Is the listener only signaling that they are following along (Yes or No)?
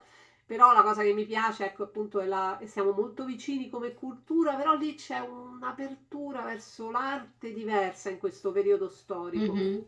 No